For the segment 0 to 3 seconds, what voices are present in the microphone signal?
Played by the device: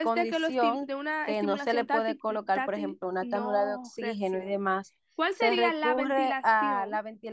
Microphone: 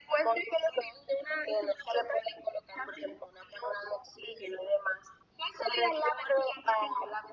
echo only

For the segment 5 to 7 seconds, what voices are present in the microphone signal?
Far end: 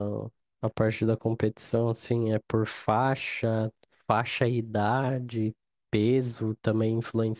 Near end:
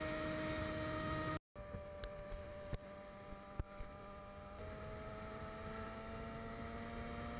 neither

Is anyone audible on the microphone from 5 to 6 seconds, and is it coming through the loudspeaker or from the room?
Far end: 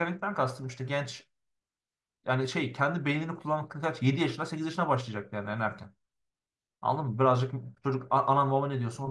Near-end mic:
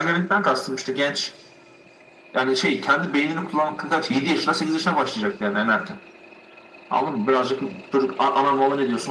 echo only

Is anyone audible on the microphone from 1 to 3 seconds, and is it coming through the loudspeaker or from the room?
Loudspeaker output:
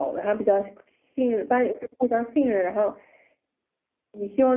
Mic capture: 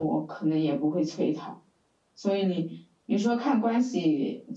user only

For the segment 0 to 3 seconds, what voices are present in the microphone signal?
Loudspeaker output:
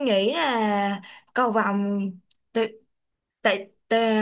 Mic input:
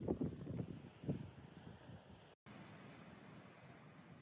neither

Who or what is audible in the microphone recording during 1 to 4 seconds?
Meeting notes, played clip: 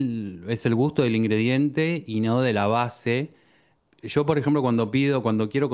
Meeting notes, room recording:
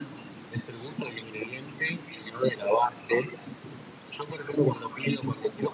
echo only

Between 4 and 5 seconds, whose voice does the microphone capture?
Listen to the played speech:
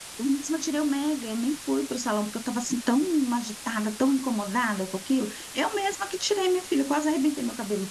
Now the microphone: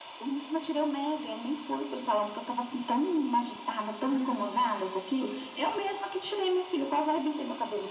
both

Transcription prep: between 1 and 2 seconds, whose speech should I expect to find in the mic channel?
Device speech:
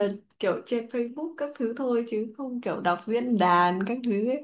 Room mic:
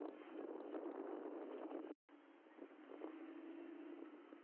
neither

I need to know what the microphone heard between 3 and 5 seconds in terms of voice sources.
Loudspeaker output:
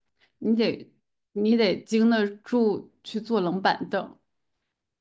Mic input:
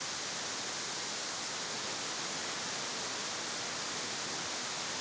neither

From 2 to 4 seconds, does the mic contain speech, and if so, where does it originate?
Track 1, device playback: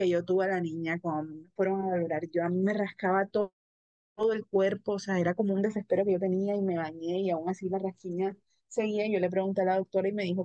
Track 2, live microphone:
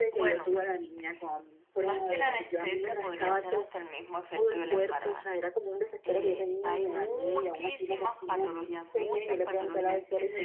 both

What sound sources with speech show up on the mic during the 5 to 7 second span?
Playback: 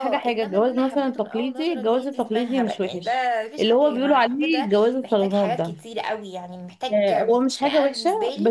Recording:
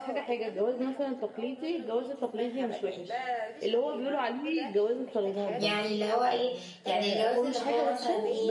both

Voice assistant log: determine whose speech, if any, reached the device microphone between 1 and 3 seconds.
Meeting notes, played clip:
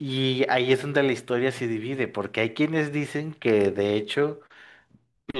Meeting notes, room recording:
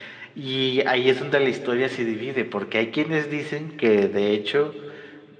echo only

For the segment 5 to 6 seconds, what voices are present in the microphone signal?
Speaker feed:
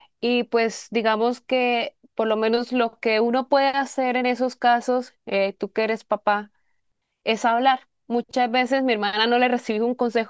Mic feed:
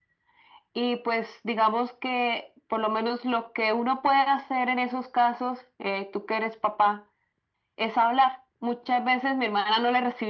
echo only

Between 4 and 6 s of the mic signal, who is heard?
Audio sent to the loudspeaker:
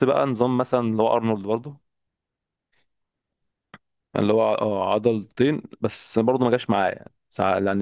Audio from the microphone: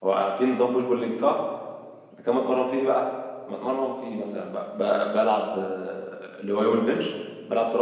user only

